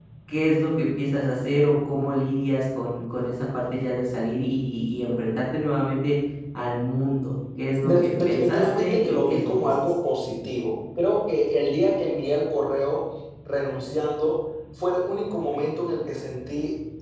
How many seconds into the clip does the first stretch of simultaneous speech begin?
7.8 s

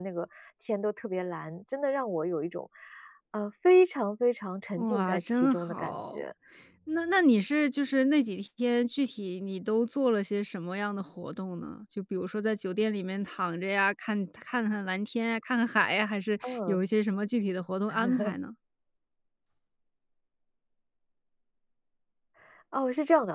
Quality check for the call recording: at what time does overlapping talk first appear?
4.8 s

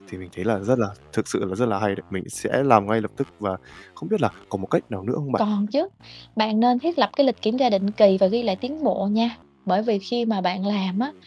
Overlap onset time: none

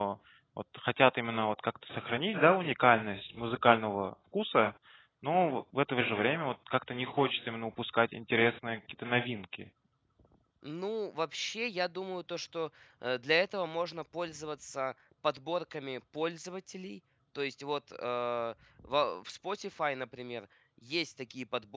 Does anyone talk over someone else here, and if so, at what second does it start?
none

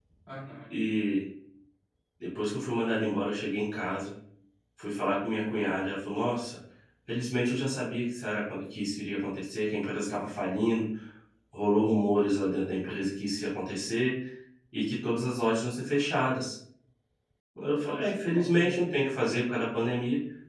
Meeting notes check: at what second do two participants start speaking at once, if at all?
17.8 s

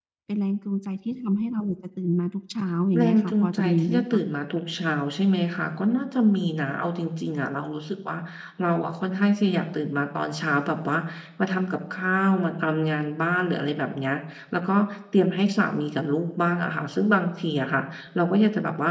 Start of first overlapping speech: 2.9 s

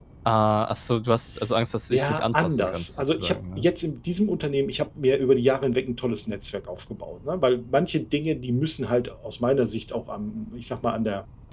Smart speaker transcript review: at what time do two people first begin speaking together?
1.9 s

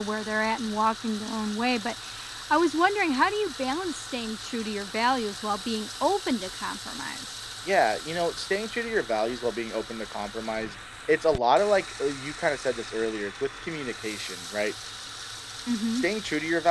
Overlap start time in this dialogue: none

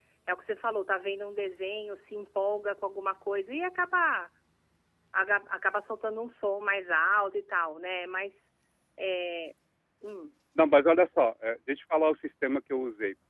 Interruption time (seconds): none

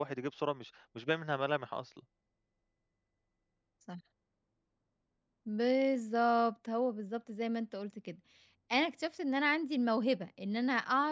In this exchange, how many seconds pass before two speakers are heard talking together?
none

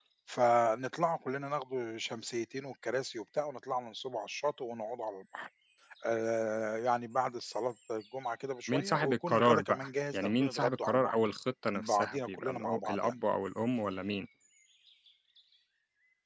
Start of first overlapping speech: 8.7 s

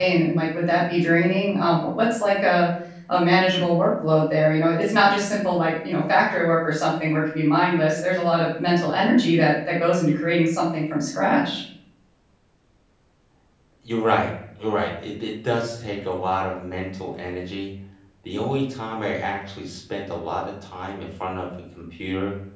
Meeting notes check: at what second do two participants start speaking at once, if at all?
none

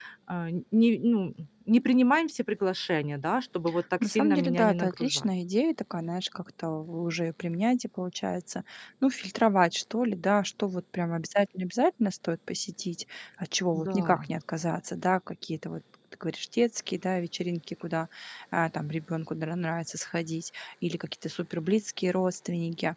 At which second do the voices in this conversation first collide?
4.0 s

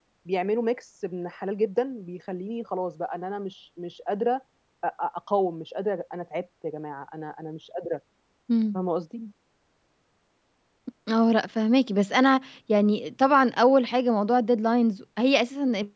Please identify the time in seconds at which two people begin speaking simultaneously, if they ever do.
none

